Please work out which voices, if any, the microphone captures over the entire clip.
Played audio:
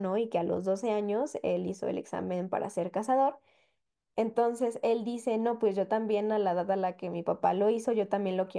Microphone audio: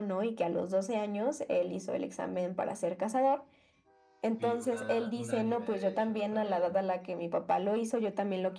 both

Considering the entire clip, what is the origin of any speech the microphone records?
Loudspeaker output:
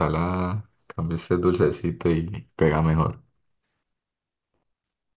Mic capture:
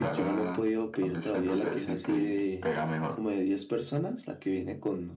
both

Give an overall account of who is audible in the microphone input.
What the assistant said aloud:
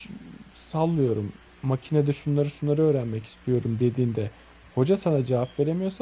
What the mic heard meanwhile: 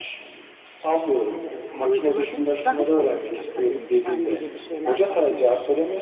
both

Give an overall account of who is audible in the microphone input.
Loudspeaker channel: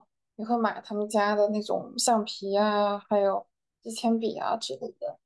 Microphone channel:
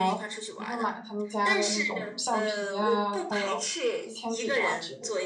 both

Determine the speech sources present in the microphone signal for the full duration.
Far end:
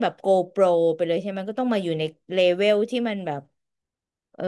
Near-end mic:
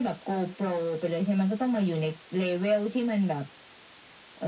echo only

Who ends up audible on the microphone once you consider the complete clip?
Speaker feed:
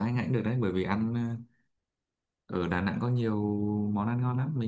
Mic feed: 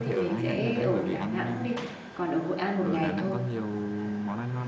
both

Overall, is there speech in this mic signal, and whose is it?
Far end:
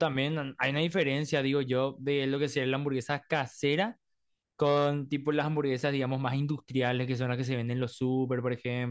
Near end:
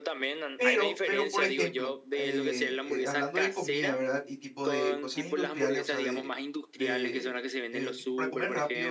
both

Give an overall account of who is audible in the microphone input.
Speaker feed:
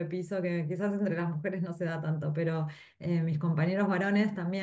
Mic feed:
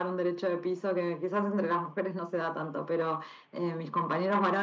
echo only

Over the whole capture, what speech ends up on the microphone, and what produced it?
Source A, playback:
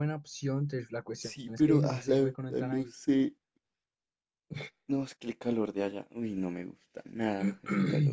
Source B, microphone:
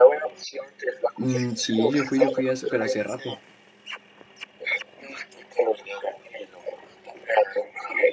both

